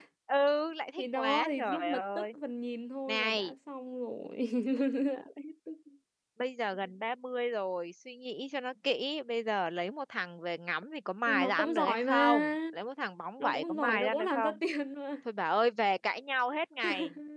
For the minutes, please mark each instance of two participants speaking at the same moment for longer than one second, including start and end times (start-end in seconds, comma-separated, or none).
1.0-2.3, 11.3-12.5, 13.4-14.6